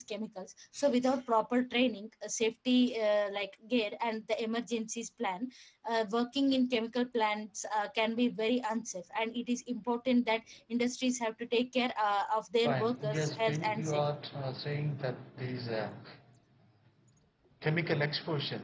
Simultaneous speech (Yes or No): Yes